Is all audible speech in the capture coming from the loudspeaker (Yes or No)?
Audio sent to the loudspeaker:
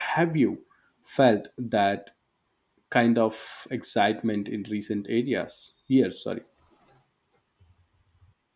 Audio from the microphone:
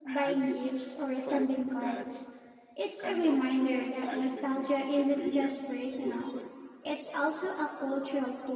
No